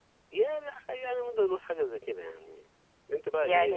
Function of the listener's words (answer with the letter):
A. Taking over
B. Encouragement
A